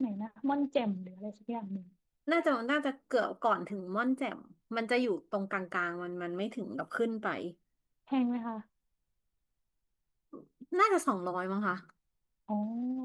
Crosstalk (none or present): none